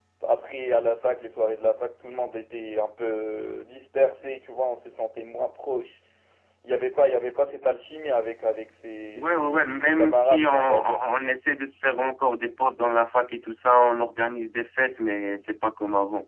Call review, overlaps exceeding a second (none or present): present